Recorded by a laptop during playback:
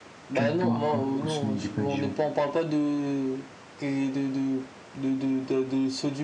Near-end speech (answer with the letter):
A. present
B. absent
A